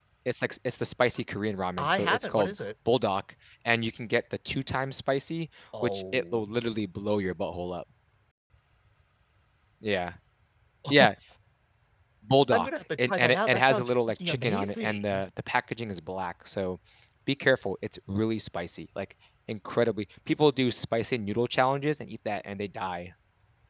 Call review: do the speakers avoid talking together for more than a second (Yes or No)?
No